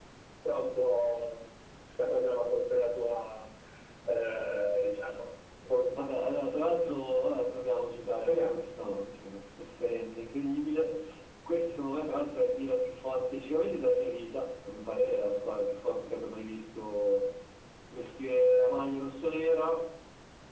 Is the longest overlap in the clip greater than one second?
No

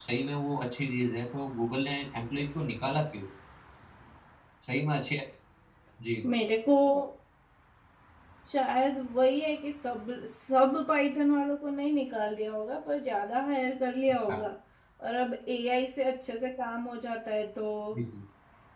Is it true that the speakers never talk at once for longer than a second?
Yes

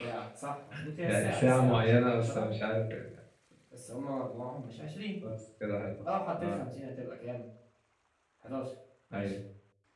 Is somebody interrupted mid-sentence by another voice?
Yes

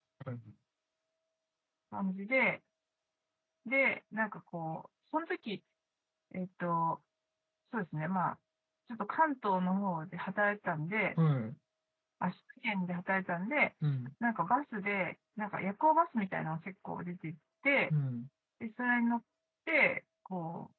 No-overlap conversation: Yes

